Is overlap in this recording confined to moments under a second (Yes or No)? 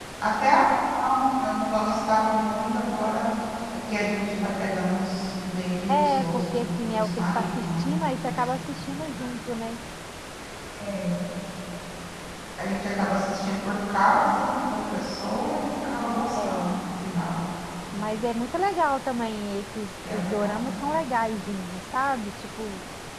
No